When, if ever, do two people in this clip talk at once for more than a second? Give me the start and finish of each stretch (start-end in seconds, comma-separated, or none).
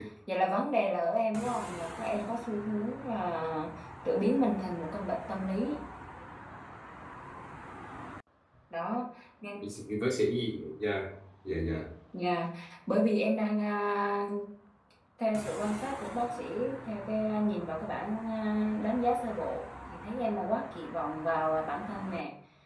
none